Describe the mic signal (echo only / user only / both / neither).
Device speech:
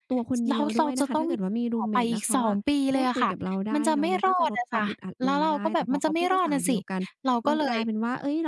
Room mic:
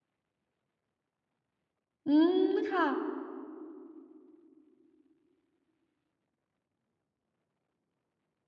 user only